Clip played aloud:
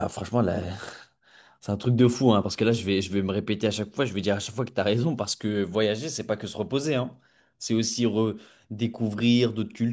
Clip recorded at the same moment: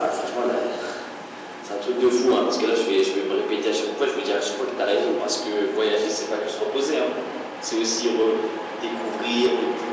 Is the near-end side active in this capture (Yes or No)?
No